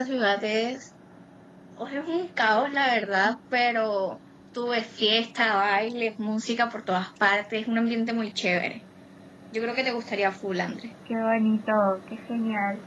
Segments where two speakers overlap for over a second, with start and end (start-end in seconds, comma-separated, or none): none